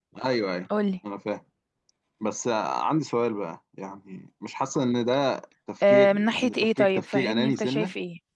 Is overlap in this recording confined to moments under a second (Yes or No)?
No